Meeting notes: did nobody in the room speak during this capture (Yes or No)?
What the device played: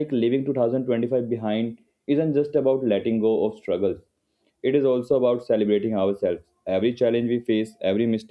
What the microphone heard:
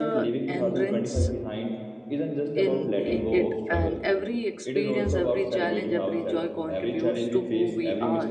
No